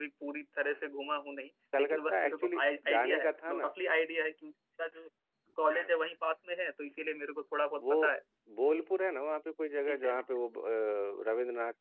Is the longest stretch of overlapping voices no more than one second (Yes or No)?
No